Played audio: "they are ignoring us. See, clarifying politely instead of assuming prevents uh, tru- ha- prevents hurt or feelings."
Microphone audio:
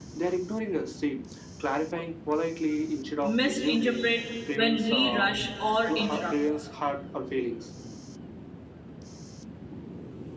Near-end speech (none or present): present